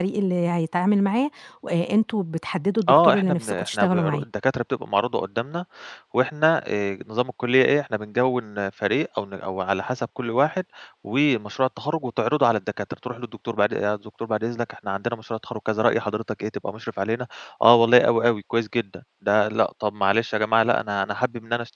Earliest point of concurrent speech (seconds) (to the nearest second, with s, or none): 3 s